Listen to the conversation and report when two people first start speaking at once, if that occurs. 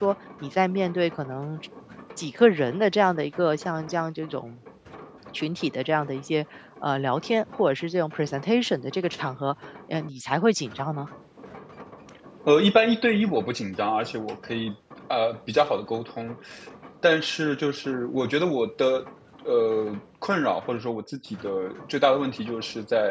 none

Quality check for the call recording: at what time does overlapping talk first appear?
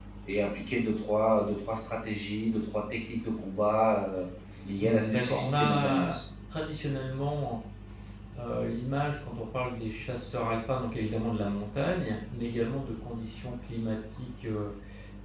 4.8 s

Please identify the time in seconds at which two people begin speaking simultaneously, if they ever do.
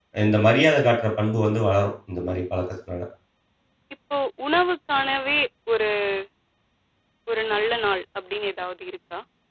none

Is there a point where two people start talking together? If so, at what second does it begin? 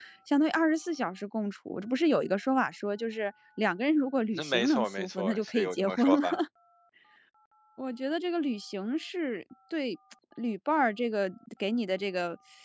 4.3 s

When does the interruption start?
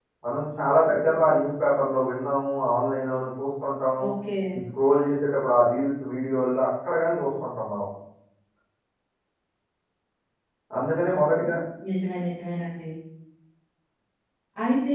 none

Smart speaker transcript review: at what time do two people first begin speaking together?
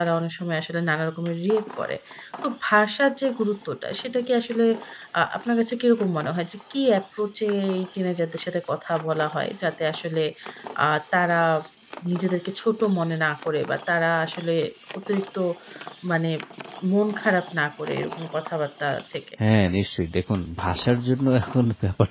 none

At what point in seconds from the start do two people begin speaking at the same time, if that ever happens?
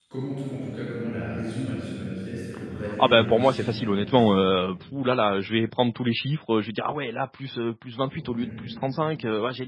3.0 s

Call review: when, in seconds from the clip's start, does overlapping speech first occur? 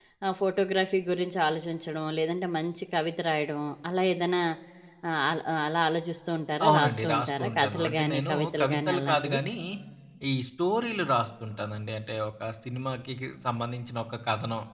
6.6 s

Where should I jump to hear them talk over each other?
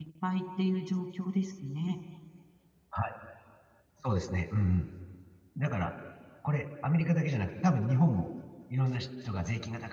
none

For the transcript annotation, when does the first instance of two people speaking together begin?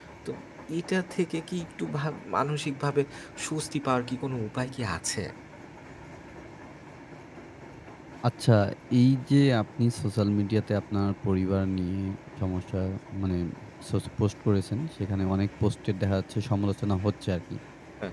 none

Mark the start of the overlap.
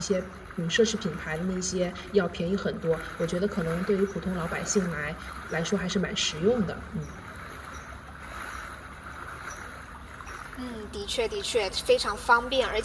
none

